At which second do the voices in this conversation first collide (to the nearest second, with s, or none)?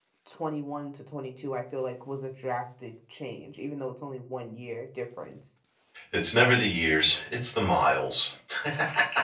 none